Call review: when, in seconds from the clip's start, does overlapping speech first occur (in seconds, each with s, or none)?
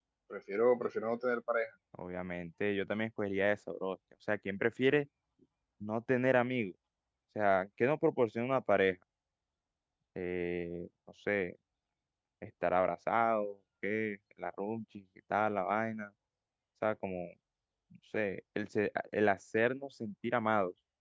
none